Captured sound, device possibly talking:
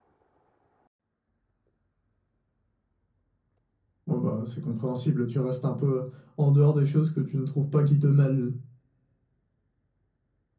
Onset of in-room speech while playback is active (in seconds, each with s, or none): 4.1 s